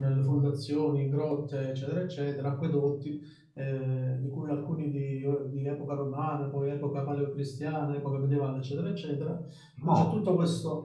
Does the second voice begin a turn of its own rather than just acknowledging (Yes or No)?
No